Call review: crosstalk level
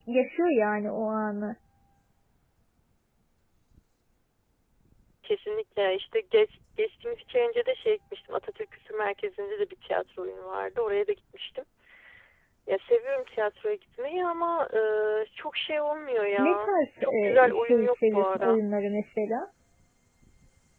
present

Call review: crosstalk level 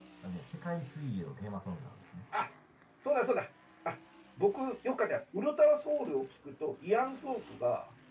none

